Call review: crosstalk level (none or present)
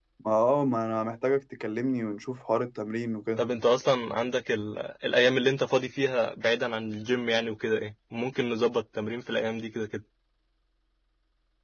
none